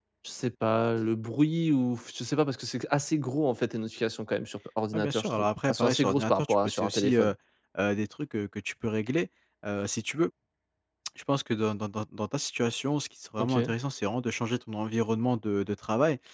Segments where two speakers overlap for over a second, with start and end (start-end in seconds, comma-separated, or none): 4.9-7.3